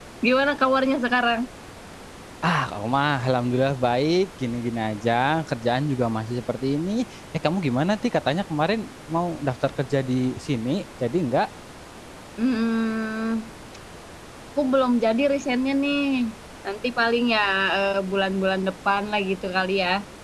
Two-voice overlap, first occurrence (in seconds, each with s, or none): none